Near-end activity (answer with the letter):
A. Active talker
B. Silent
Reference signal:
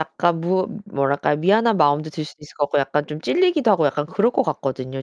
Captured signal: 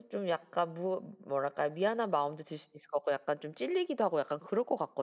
B